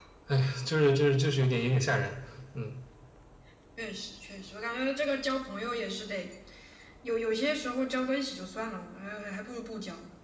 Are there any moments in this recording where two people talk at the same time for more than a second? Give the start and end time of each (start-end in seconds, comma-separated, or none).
none